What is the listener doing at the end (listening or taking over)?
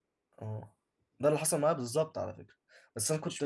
listening